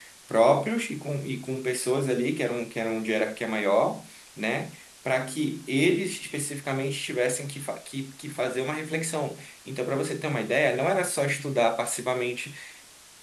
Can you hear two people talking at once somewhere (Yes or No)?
No